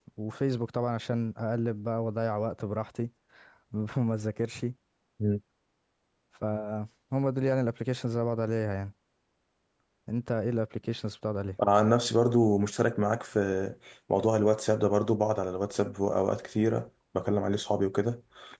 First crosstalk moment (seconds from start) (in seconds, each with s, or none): none